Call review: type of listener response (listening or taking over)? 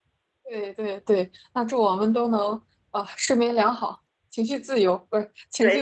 taking over